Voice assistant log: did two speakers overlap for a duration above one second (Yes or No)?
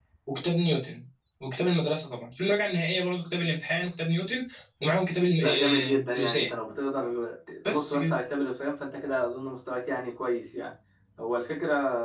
Yes